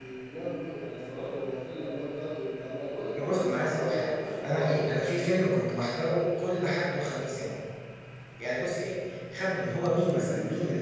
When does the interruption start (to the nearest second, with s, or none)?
3 s